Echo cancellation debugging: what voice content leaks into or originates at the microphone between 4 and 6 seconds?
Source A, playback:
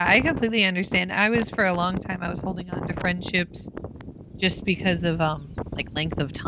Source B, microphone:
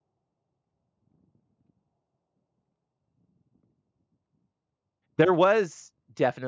user only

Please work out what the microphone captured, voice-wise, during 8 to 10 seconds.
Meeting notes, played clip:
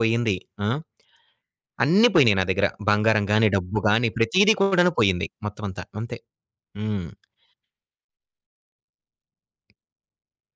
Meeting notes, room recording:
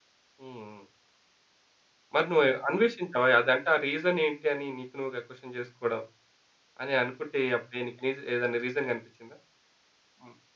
user only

